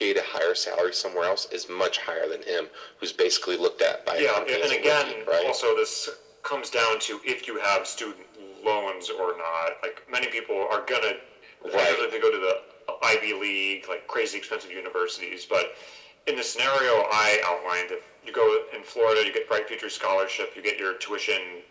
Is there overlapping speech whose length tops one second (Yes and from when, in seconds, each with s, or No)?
Yes, from 4.1 s